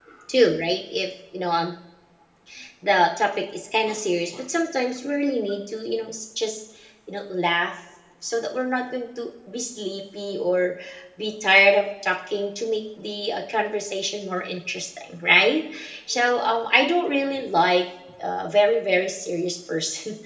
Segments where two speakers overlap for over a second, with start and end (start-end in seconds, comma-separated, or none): none